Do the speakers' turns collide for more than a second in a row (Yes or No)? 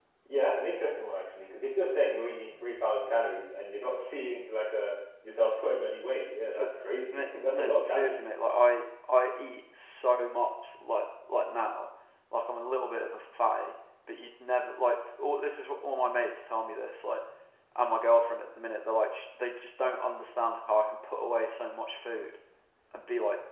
Yes